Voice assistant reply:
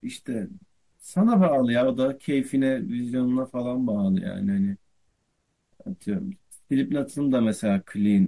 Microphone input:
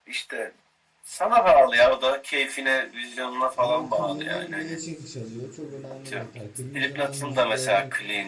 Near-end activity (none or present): present